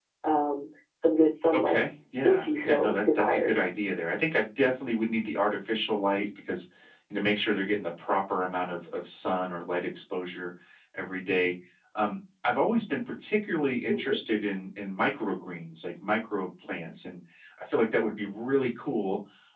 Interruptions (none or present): present